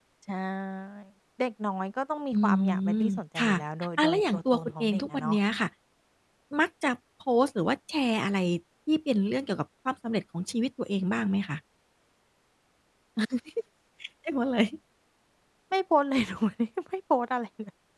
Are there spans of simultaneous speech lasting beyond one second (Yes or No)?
Yes